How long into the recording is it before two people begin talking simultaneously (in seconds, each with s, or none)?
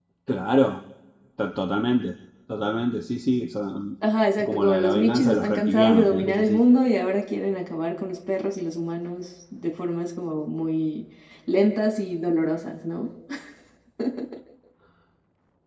4.4 s